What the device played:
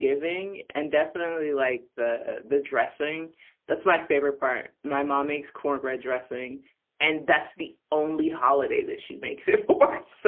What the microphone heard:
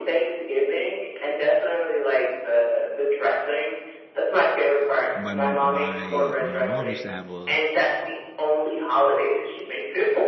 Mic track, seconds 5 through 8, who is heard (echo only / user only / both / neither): both